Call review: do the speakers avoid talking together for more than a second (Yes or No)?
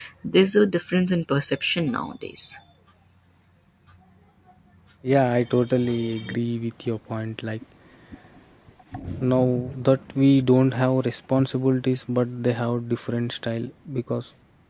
Yes